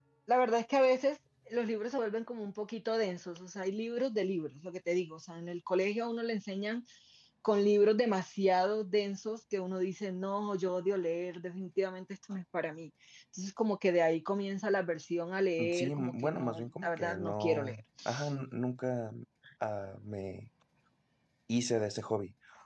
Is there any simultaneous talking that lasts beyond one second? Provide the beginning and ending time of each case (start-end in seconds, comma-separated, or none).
15.7-17.8